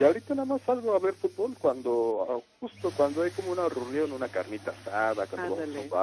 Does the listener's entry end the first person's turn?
No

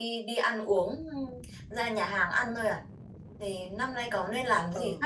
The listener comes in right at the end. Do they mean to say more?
Yes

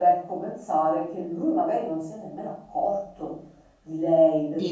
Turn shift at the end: No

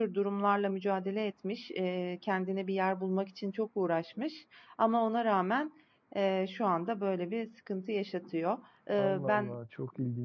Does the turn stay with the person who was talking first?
No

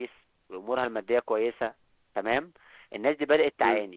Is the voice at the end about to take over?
No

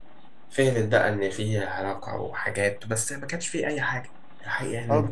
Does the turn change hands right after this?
Yes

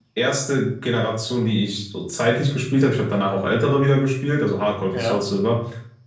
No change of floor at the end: Yes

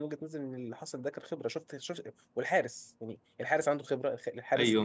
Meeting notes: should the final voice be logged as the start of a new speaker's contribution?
Yes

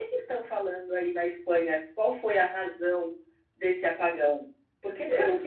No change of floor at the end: Yes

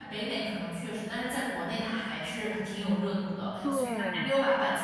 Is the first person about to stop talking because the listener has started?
No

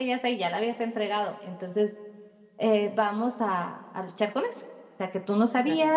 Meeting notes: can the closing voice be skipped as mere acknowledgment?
Yes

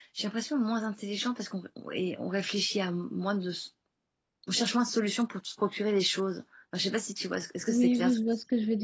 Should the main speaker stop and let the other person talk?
Yes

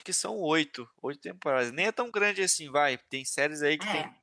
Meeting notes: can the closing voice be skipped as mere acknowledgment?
Yes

